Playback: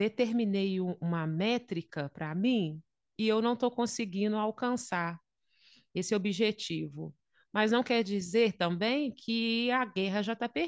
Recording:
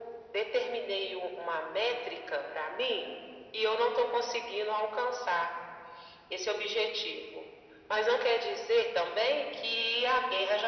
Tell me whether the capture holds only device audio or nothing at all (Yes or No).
Yes